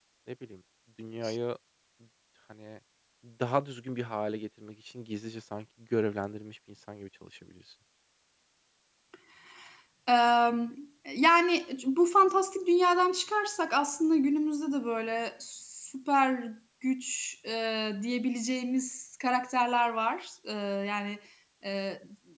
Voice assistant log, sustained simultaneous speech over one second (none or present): none